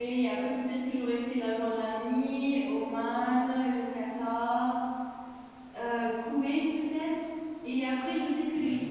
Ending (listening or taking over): listening